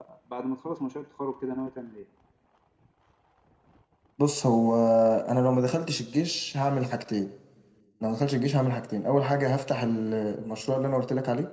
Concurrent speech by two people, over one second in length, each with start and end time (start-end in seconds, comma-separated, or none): none